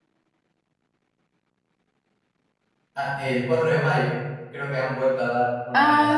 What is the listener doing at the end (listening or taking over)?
taking over